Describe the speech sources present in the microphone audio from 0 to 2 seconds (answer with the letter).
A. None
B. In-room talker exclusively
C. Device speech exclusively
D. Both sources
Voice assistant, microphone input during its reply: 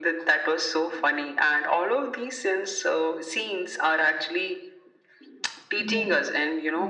C